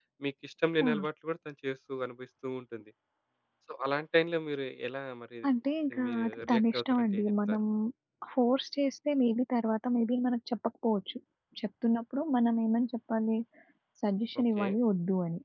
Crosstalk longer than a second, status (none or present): present